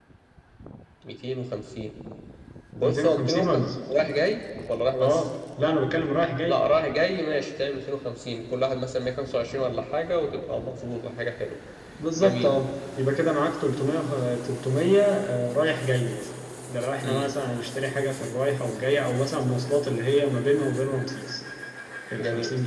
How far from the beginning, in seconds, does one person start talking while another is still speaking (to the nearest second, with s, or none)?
3 s